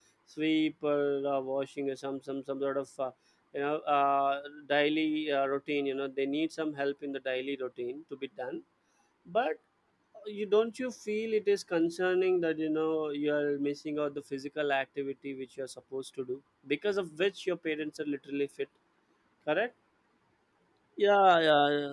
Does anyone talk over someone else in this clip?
No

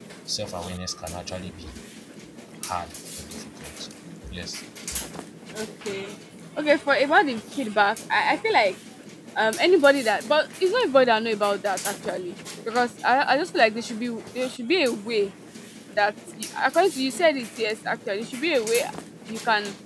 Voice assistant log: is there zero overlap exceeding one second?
Yes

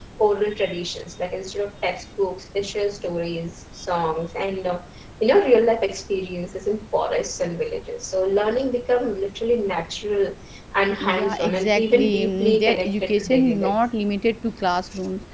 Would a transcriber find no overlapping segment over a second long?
No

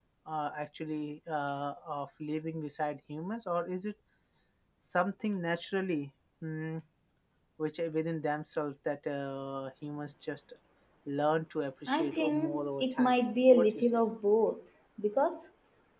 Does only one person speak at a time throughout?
No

